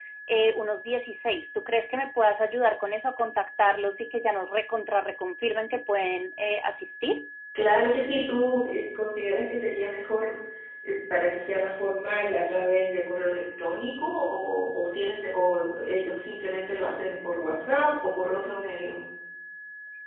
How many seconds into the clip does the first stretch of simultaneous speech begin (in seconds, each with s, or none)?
none